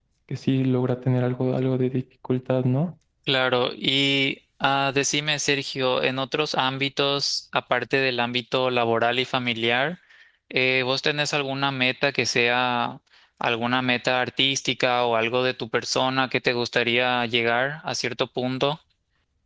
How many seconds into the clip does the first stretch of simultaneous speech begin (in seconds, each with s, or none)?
none